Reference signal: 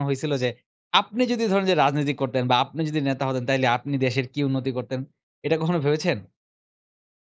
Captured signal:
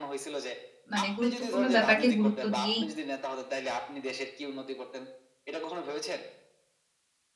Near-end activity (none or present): present